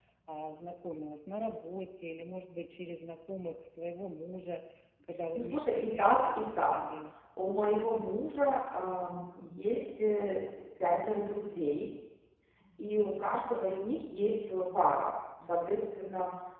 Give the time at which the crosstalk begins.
5 s

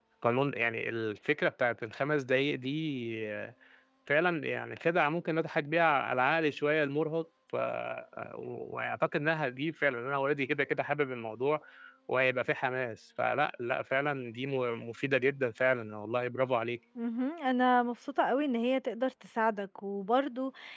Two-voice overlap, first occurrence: none

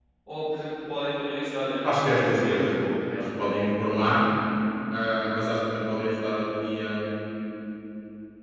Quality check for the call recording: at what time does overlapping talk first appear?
2 s

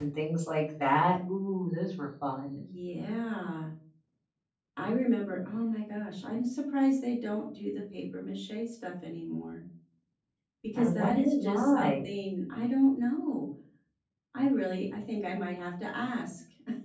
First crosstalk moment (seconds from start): 11 s

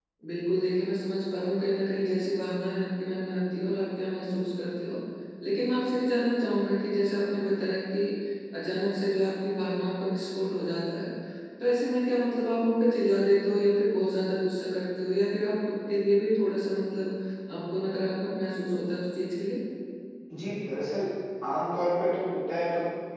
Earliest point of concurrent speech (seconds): none

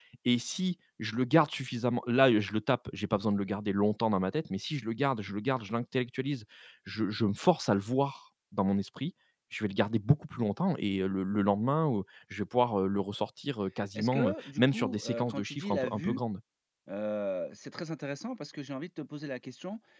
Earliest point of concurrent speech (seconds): 14 s

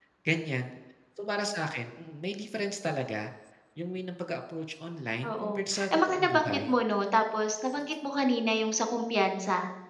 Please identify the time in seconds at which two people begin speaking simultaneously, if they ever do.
5 s

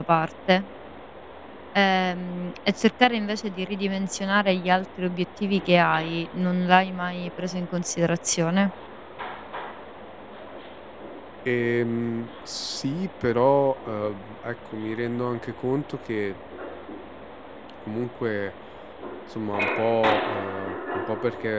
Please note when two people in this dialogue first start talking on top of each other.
none

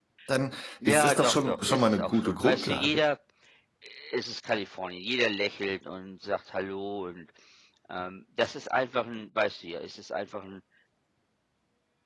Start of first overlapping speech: 1 s

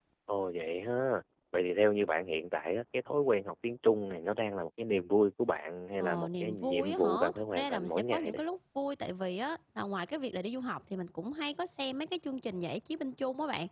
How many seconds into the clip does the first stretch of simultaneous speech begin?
6 s

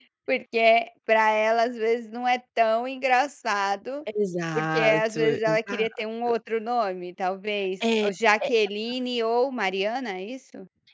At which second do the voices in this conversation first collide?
5 s

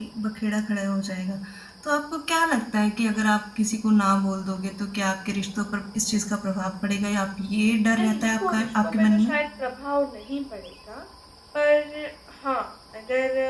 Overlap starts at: 8 s

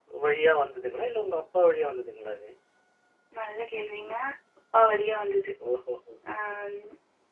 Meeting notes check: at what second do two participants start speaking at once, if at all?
none

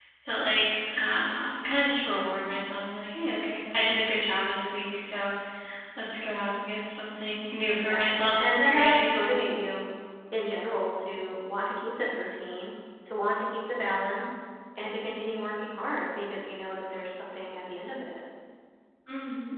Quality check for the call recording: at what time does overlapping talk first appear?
8 s

